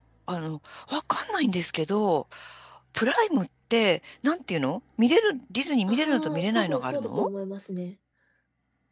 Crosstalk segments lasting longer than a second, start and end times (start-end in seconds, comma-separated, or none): 5.9-7.3